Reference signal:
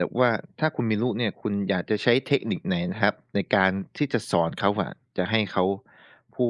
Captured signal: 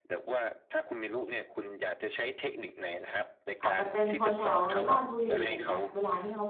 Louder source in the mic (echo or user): user